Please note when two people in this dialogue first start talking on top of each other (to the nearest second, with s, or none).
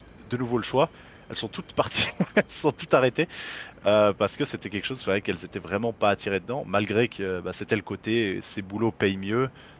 none